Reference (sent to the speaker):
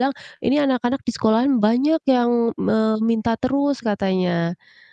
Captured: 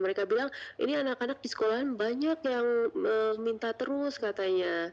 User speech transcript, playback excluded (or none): none